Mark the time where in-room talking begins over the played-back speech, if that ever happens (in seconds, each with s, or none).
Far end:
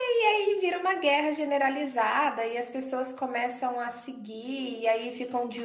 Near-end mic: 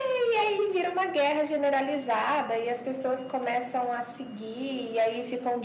none